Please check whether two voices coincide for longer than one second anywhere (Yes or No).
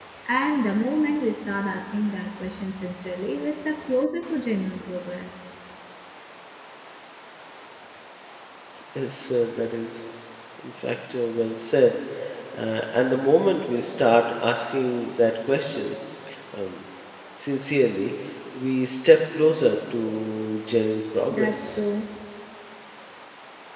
No